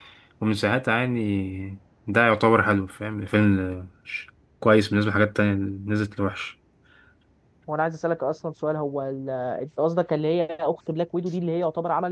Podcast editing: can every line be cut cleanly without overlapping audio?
Yes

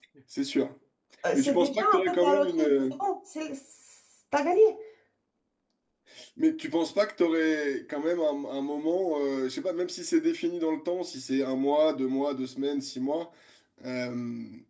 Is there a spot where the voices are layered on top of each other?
Yes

